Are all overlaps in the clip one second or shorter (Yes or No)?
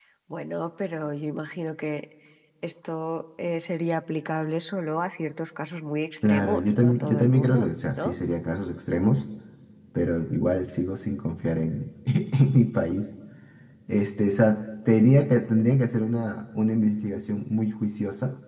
No